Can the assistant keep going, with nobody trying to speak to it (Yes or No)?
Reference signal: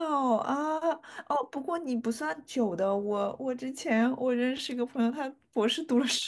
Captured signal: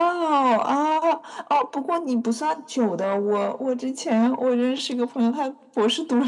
Yes